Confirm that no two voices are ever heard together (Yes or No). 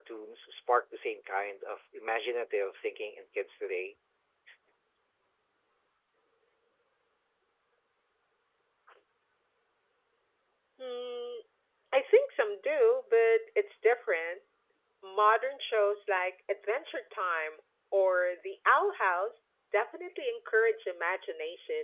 Yes